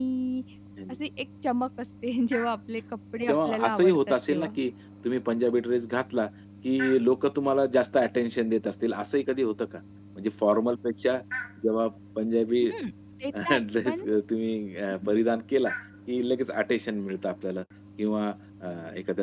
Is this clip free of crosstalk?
No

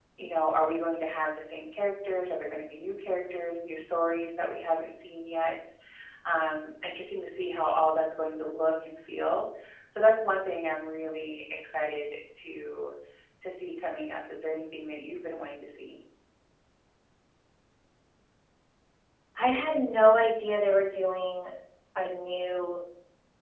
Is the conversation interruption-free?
Yes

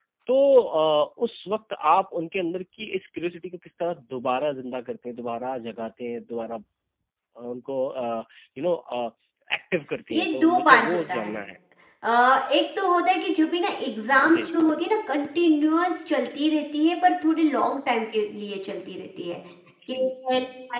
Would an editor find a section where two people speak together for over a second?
Yes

